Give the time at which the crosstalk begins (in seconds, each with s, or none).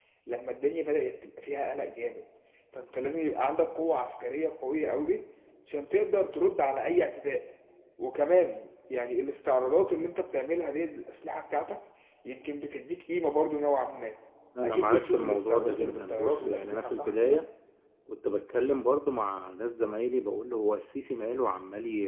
14.6 s